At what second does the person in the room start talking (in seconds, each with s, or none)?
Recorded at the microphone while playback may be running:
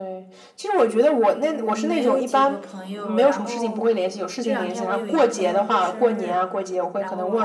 1.3 s